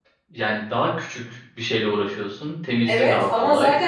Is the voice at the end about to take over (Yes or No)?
Yes